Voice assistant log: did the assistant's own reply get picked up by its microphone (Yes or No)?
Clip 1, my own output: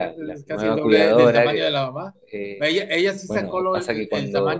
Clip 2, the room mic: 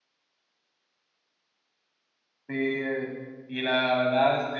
No